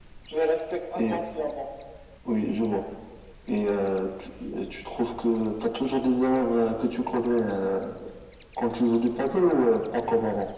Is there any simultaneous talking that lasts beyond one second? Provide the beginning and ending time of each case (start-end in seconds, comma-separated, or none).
none